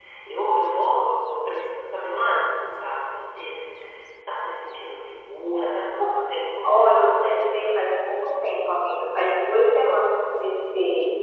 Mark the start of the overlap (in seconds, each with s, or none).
6.6 s